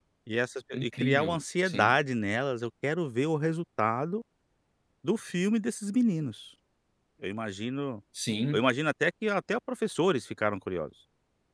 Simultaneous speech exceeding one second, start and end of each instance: 0.7-1.9

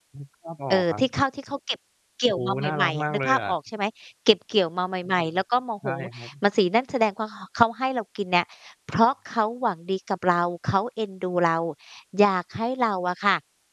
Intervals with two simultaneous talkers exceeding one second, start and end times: 2.3-3.5

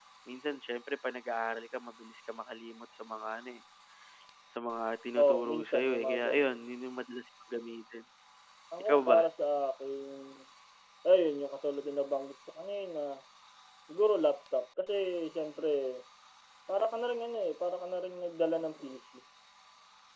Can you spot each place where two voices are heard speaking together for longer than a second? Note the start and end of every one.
5.2-6.4

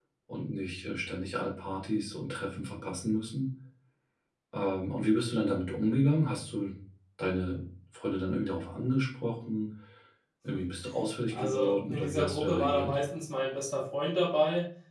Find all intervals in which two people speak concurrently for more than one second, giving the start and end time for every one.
11.3-12.9

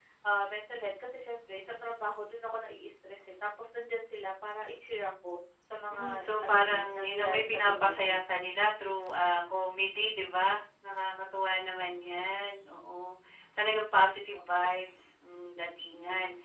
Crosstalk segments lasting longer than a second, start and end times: 5.9-8.2

